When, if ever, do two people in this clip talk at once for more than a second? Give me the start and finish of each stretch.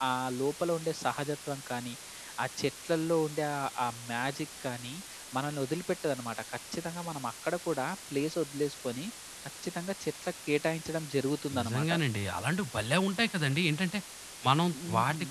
none

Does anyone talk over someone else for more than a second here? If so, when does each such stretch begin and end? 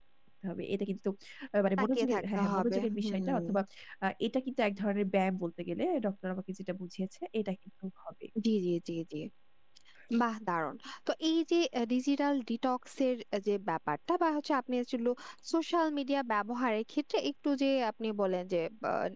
1.8-3.4

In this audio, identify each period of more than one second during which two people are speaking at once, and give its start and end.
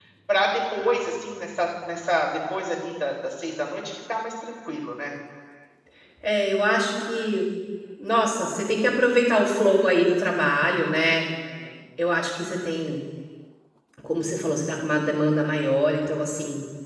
none

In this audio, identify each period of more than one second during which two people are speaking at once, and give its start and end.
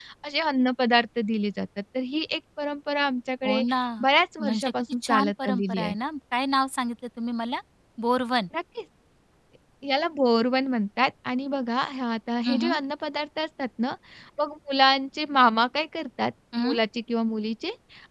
4.4-5.9

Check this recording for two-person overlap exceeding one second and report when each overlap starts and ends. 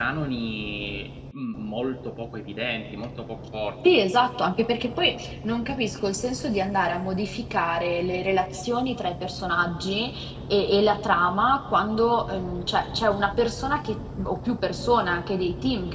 none

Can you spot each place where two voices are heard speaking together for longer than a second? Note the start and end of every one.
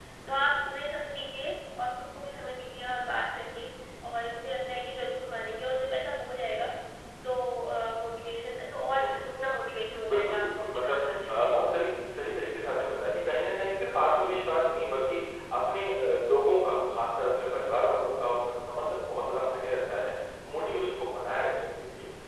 10.1-11.5

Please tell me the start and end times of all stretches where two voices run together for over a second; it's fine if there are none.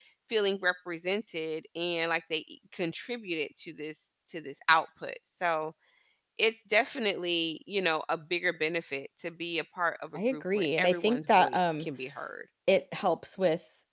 10.2-11.9

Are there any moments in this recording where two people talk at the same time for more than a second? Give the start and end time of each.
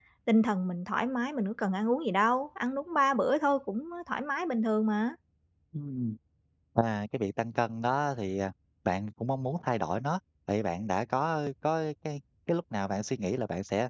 none

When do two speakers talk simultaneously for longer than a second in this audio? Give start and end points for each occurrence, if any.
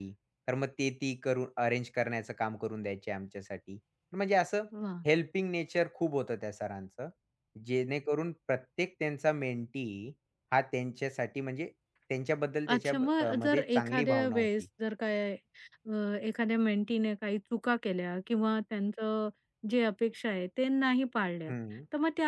12.7-14.5

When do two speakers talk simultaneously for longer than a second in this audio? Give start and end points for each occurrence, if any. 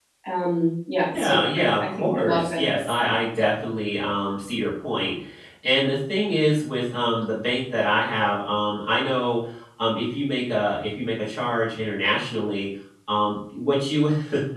1.2-3.1

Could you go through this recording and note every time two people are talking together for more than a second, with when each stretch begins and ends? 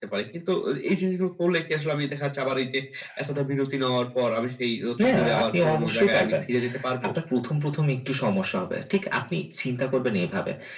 5.0-6.4

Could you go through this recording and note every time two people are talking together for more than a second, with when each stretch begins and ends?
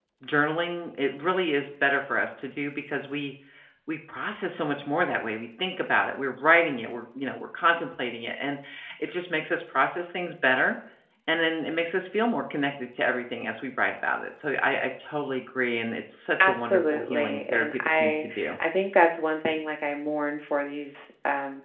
16.4-18.2

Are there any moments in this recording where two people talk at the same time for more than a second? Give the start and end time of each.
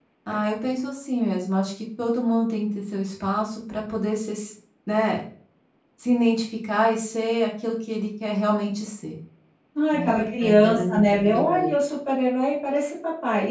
9.9-11.7

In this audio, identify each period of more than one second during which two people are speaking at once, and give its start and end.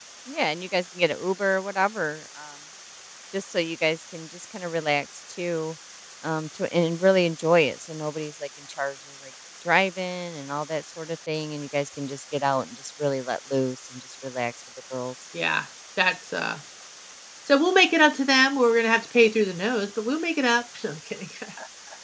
none

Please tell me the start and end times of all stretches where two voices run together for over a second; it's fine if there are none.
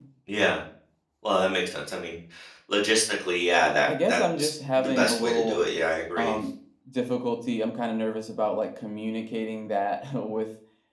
3.9-5.6

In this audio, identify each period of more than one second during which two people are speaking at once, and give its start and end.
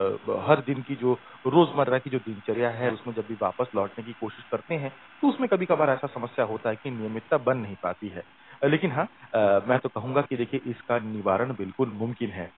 none

